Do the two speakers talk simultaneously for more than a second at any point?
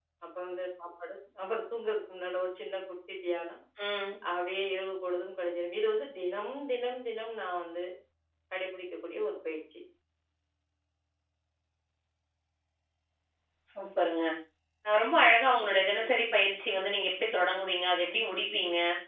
No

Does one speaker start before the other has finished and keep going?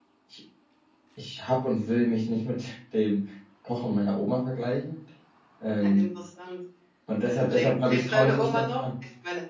Yes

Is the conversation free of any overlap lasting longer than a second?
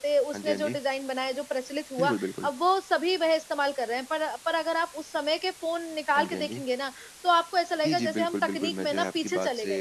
No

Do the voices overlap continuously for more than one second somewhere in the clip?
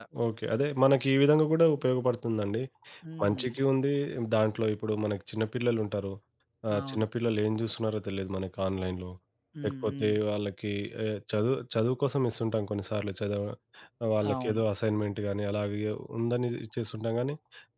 No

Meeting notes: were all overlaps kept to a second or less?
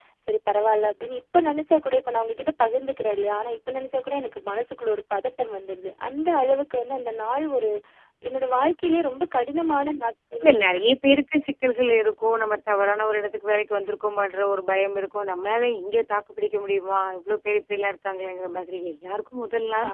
Yes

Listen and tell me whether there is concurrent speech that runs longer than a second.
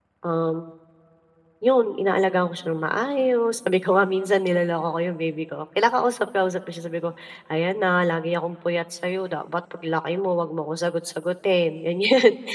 No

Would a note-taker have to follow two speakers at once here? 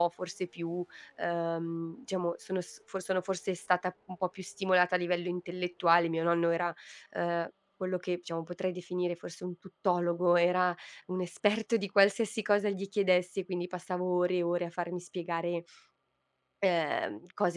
No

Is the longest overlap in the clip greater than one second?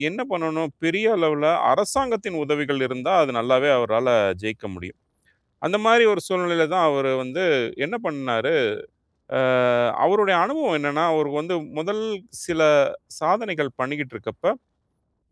No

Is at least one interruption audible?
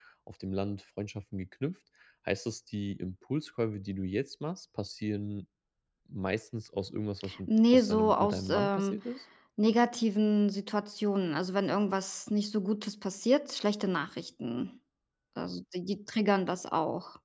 Yes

